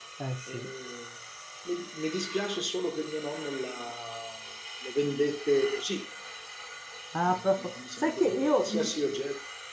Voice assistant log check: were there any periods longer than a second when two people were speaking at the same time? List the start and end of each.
7.3-8.9

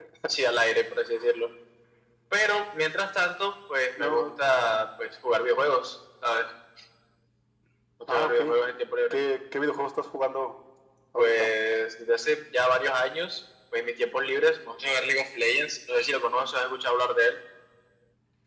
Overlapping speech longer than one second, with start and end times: none

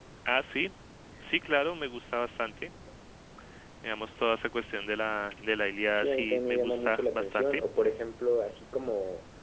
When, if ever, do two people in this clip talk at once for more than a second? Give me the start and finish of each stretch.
5.9-7.6

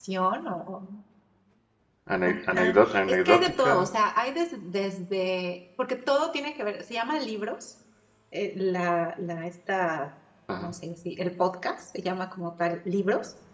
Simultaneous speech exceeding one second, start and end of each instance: 2.2-3.9

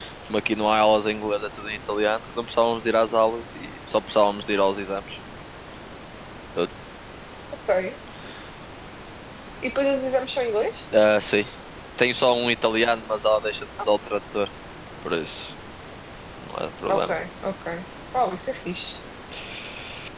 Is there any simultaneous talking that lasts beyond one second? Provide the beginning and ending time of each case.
none

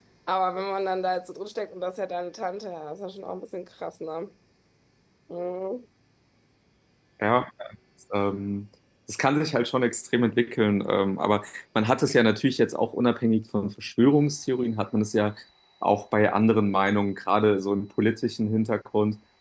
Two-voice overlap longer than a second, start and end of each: none

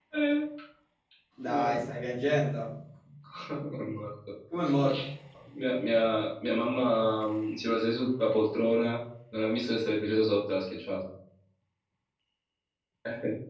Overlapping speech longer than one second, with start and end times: none

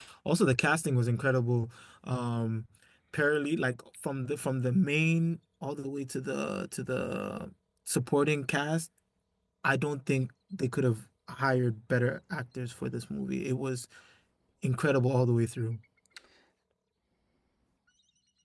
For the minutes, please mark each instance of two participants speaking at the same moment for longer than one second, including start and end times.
none

